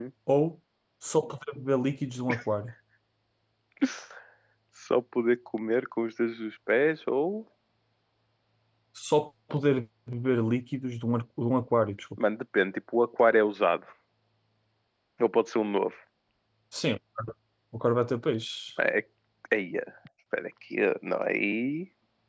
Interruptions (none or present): none